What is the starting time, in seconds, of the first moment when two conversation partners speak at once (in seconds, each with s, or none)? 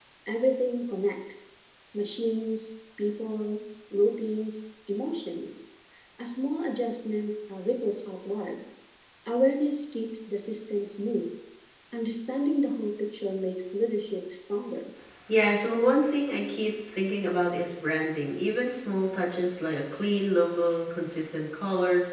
none